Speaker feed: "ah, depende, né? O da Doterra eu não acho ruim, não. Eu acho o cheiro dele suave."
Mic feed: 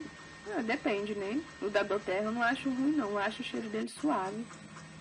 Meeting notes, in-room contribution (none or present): none